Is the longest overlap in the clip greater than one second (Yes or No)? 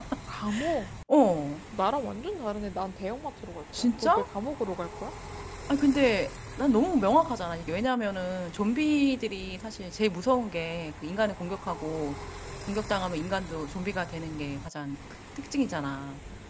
No